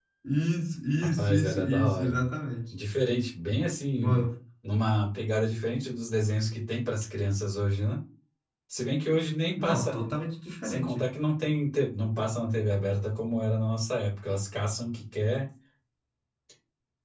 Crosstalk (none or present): present